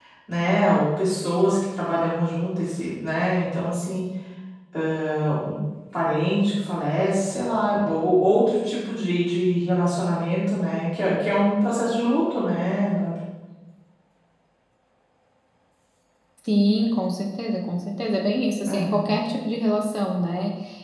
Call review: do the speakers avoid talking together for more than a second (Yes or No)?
Yes